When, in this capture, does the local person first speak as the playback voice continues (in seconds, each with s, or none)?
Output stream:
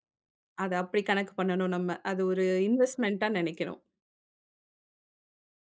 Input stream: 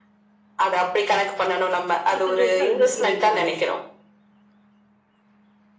2.1 s